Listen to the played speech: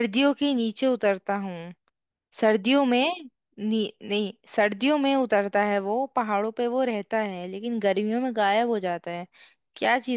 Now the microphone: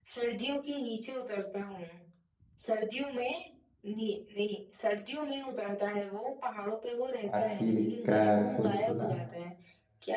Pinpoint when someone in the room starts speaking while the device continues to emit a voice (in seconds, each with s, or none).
7.3 s